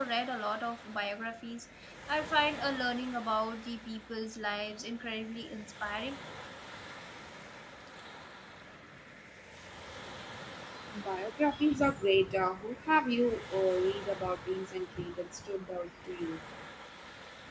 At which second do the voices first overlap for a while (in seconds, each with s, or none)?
none